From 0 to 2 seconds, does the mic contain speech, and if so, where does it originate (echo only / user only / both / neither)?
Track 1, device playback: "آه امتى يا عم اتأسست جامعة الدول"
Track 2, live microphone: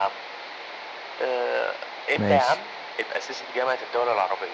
echo only